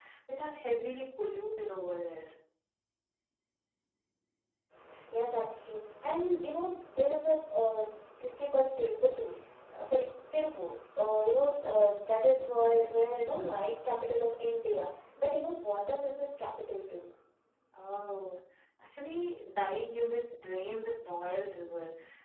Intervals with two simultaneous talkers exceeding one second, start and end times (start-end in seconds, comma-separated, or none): none